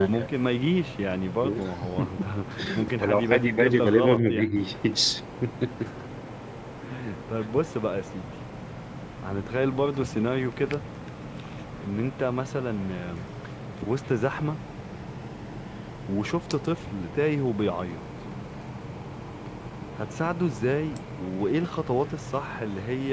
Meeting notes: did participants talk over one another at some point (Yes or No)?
Yes